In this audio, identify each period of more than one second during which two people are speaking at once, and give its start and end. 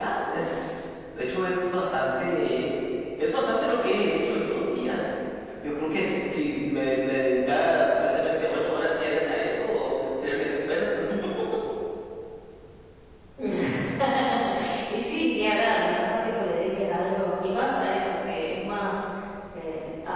none

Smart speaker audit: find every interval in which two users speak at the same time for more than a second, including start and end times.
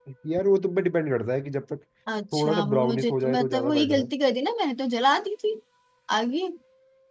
2.3-4.0

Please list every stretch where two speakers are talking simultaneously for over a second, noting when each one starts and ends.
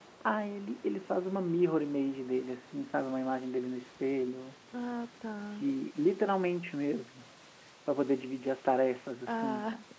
none

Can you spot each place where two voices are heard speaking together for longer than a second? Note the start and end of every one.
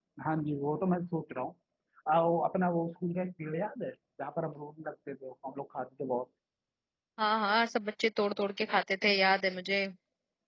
none

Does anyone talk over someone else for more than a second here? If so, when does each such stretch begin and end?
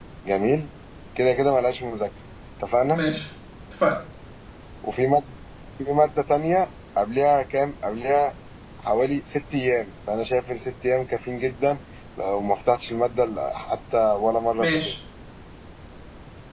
none

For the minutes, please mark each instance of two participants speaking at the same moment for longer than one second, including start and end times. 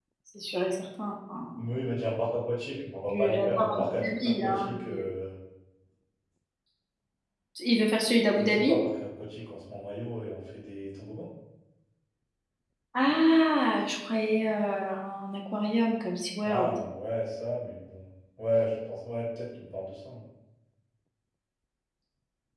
3.1-5.0

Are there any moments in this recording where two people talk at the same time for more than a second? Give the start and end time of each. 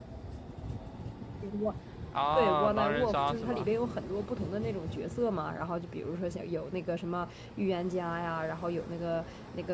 2.4-3.7

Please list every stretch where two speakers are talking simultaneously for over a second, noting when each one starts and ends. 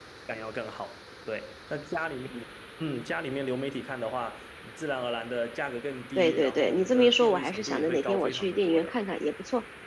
6.2-9.0

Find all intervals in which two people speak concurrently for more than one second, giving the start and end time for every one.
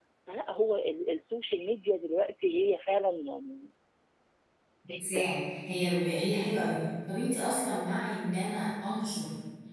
none

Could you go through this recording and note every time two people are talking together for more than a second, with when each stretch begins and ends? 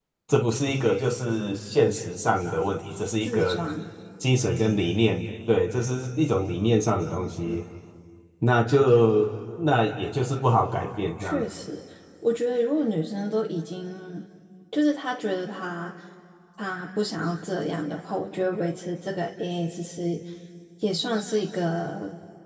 none

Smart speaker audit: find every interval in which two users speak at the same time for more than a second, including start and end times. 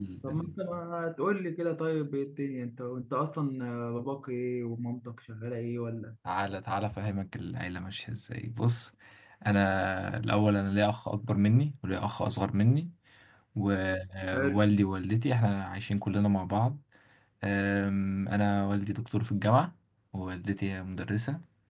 none

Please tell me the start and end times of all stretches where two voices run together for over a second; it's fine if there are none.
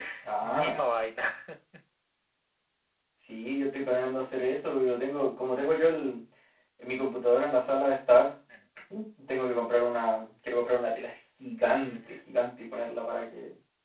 none

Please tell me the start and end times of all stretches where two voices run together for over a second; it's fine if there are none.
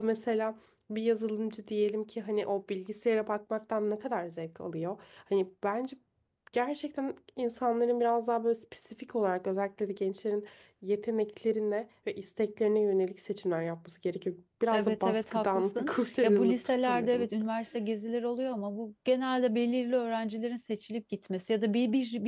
14.7-17.3

